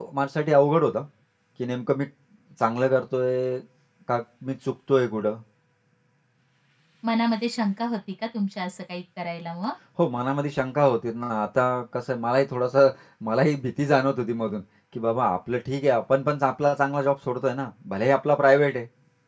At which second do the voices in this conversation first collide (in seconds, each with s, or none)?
none